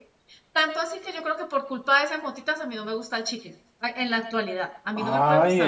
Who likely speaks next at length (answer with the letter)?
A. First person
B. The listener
B